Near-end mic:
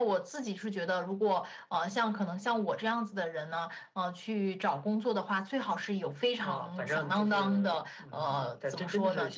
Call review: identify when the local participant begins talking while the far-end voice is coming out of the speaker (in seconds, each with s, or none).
none